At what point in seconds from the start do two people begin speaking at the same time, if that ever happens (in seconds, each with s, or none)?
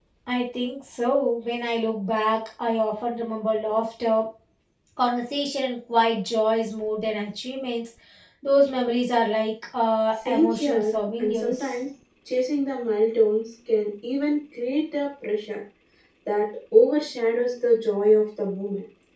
10.2 s